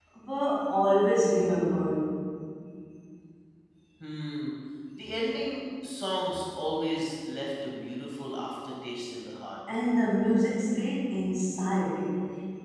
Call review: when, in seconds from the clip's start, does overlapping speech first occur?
none

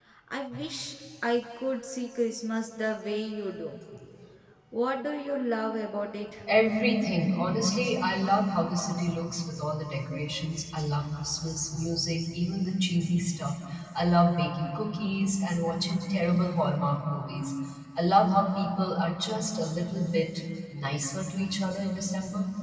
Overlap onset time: none

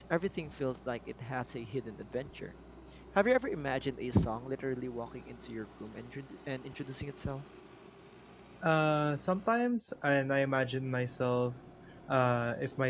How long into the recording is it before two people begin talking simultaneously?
none

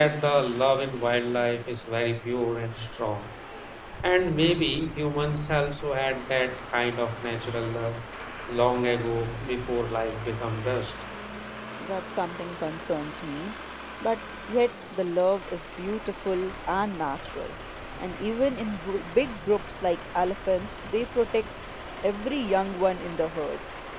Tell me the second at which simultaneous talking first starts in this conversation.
none

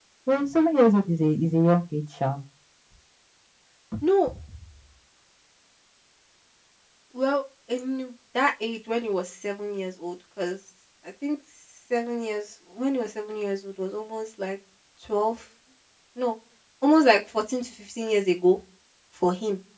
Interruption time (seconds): none

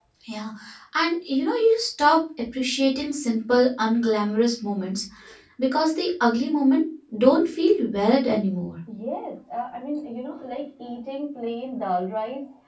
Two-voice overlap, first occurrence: none

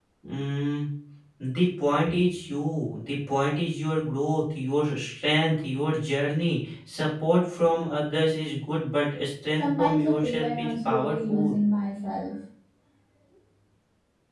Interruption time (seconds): 10 s

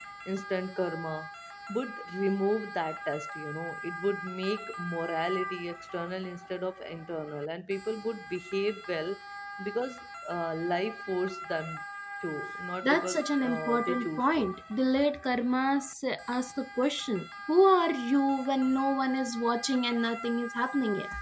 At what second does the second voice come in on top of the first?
13 s

